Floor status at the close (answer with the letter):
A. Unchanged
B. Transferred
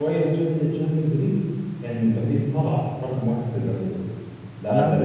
B